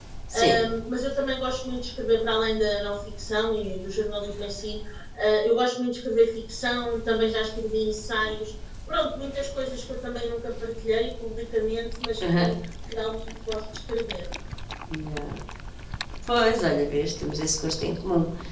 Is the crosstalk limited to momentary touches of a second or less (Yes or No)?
Yes